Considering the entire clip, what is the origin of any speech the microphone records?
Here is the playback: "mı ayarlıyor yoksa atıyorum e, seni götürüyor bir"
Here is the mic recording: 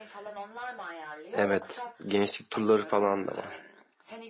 both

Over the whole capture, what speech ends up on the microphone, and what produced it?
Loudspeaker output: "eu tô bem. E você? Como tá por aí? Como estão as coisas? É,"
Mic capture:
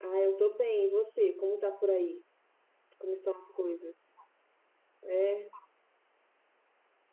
echo only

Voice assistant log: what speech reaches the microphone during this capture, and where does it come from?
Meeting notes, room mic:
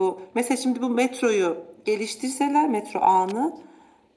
echo only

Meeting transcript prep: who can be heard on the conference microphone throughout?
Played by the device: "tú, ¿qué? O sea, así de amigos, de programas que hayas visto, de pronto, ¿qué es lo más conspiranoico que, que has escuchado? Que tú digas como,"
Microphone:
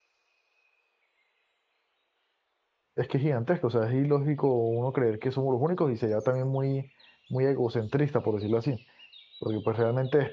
user only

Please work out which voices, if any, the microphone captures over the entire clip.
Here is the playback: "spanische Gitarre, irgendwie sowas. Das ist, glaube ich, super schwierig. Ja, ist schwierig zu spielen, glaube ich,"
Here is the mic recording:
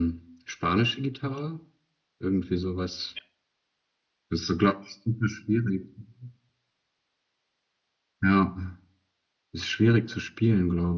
echo only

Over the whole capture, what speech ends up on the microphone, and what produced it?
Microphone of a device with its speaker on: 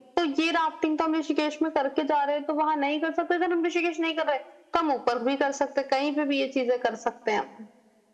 echo only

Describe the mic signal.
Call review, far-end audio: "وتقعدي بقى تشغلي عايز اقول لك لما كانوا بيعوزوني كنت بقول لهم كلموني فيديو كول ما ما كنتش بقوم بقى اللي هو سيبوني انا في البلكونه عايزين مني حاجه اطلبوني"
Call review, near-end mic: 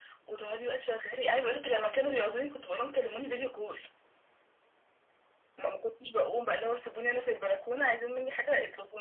echo only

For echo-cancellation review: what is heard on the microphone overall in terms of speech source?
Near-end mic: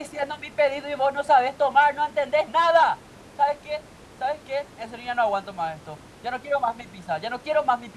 echo only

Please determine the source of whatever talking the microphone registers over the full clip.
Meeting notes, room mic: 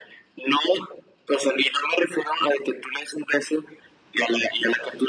echo only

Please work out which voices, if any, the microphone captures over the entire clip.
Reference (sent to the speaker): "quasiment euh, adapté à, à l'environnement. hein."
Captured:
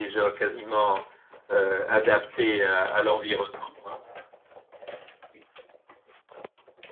echo only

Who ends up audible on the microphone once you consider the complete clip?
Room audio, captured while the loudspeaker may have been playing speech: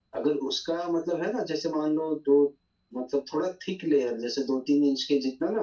echo only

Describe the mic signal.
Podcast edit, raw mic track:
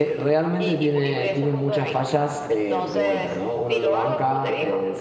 both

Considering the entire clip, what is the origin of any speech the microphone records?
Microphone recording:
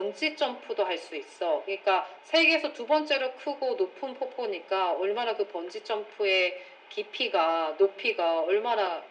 echo only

